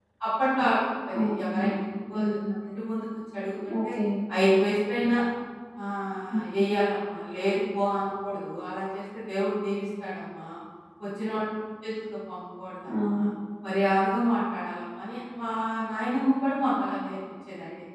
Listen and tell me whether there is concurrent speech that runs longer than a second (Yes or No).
No